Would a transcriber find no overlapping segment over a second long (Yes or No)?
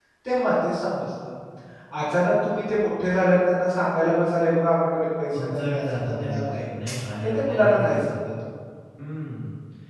No